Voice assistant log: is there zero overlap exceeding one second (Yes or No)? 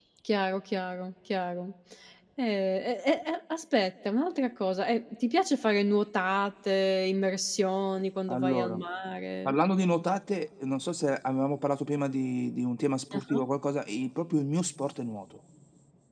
Yes